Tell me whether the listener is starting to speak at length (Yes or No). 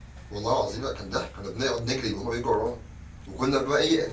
No